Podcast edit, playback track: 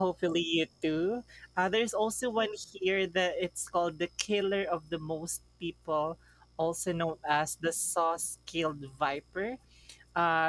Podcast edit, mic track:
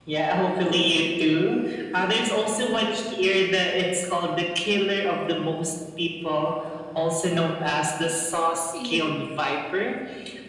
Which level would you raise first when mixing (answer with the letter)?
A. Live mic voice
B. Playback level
A